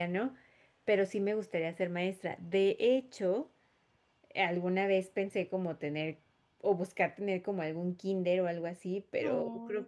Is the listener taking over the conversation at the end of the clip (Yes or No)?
No